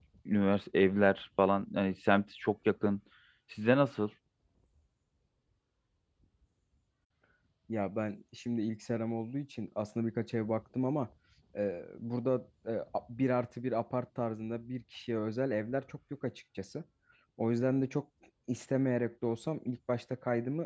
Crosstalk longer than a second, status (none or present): none